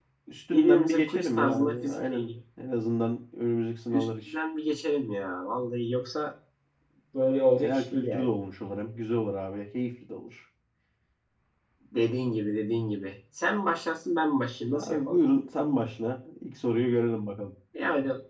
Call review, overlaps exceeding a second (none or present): present